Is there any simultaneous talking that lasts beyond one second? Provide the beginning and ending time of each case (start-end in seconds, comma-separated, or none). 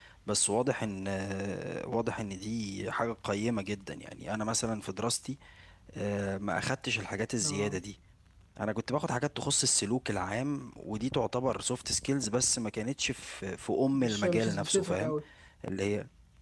13.9-15.2